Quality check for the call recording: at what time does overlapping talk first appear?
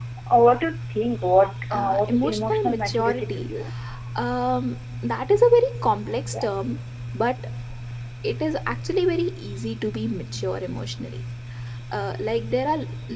1.7 s

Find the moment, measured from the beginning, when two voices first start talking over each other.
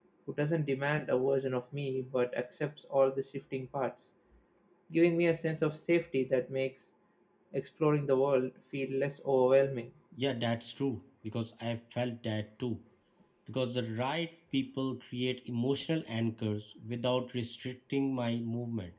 none

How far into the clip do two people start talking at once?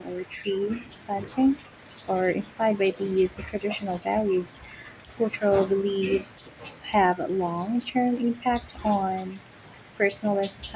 none

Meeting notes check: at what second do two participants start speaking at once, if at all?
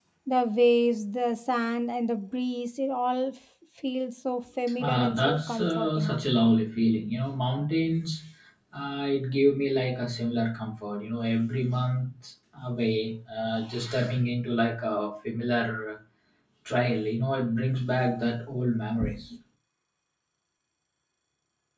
4.8 s

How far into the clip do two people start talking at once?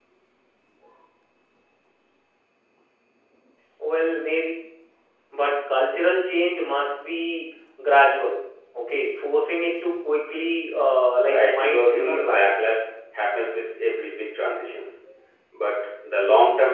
11.2 s

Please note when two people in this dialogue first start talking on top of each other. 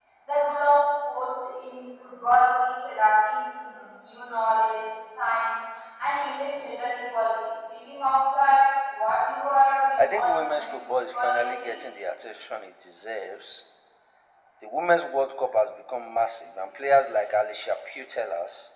10.0 s

